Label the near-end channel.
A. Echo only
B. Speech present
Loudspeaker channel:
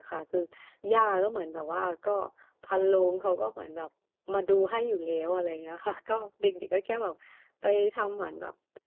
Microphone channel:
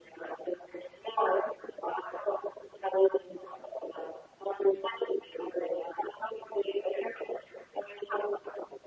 A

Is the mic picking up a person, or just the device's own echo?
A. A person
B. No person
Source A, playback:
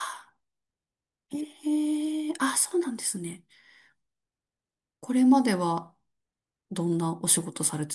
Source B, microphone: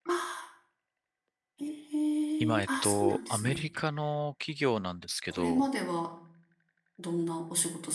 A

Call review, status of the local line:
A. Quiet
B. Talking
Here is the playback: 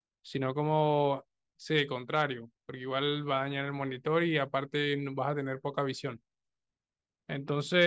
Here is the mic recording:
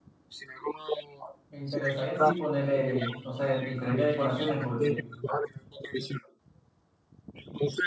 B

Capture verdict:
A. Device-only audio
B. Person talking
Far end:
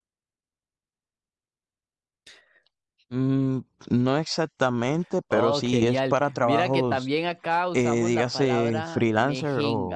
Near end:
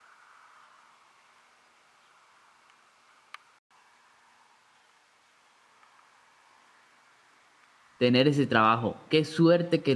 B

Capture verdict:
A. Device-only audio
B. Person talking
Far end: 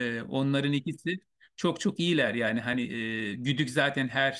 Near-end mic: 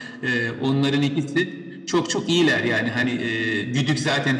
A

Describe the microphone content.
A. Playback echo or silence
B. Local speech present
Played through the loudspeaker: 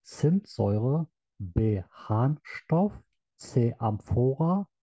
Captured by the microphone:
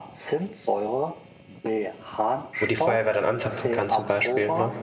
B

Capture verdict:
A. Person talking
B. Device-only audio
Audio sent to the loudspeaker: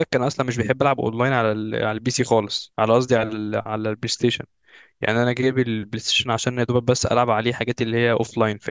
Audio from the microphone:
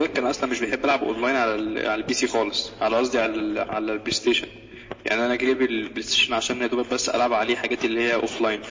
B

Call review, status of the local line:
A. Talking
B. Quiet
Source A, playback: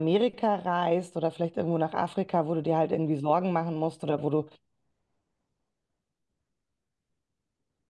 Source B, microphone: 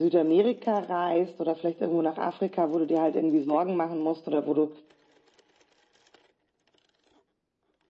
B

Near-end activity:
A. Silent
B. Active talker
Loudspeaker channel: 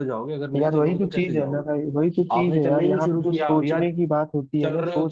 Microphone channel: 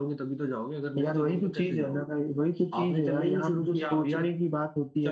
A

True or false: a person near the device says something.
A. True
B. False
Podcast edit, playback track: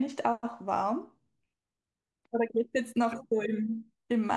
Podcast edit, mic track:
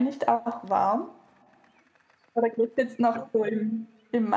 B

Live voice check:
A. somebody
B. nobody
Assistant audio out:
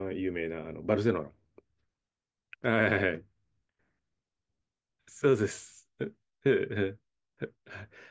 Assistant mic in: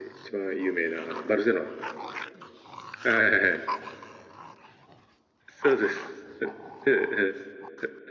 B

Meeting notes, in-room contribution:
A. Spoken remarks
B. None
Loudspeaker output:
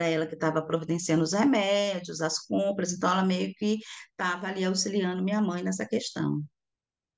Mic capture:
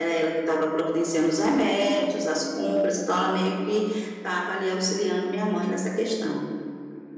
B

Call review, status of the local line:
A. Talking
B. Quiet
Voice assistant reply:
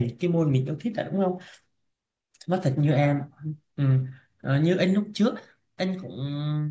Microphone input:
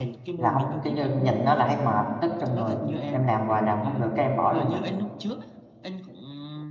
A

